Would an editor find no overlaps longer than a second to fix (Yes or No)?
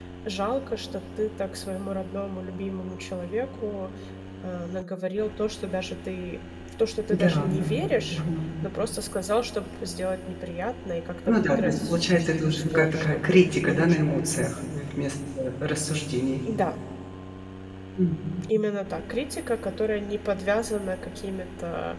No